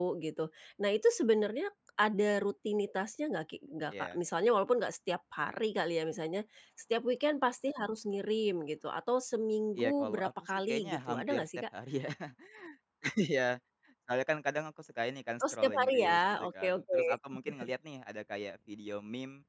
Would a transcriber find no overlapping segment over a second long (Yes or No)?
No